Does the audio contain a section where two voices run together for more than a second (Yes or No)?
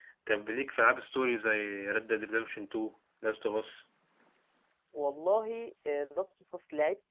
No